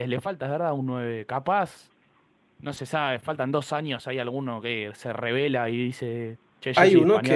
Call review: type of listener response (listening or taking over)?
taking over